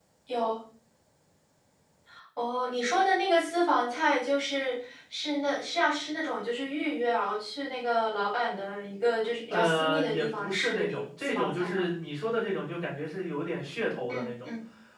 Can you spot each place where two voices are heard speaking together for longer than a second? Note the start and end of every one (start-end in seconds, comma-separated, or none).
9.5-11.8